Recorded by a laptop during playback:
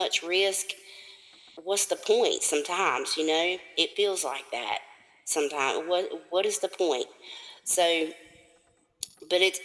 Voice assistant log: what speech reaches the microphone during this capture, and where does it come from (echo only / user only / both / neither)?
echo only